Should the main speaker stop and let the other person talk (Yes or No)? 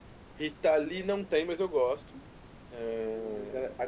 Yes